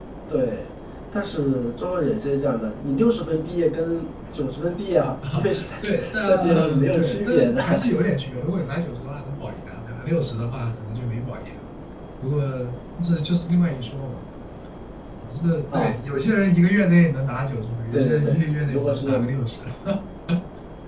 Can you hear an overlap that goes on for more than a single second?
Yes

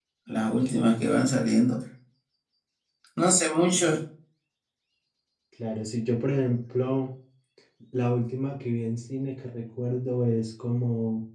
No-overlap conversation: Yes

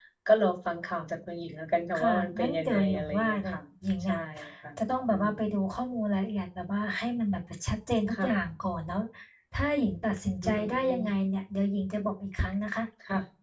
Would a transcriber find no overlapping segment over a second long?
No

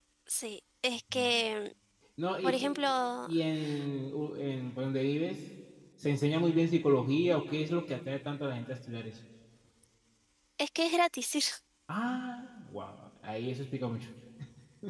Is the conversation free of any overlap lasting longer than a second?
Yes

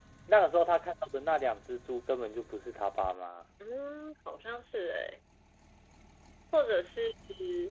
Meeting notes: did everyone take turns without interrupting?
Yes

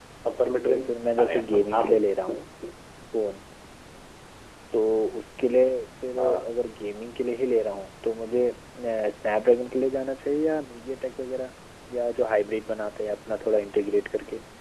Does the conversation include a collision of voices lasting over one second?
Yes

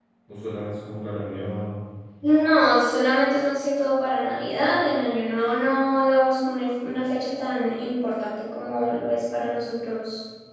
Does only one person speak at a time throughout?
Yes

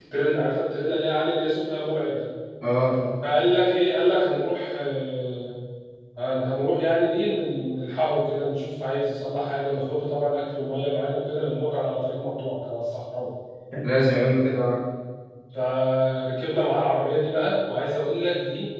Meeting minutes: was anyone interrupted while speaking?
No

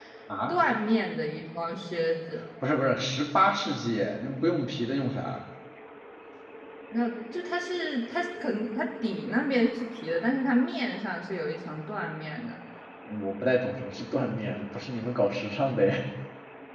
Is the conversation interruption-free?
Yes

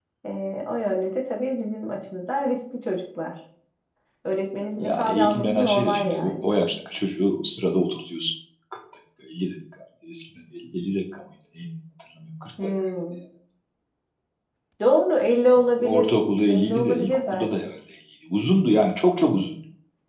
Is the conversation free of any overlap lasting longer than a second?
No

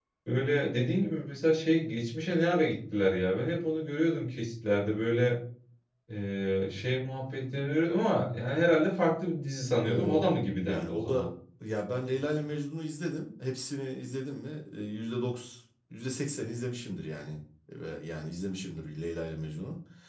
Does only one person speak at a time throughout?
No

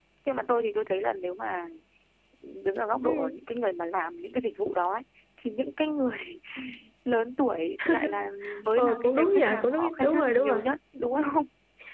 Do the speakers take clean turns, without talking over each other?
No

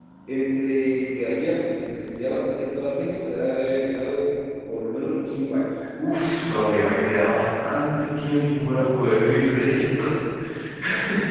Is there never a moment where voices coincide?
Yes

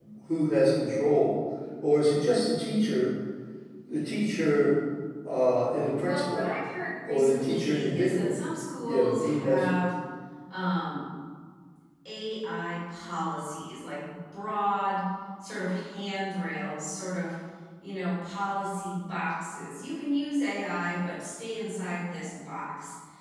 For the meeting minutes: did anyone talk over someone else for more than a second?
Yes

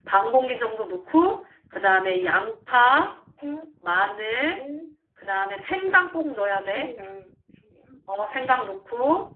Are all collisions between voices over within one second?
Yes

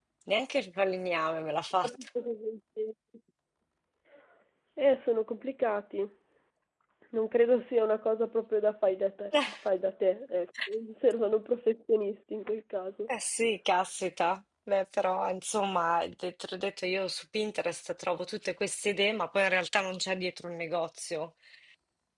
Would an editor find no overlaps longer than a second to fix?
Yes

